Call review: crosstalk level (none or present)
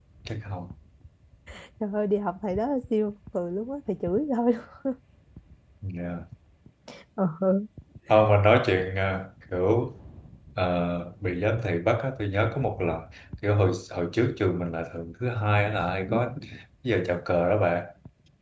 none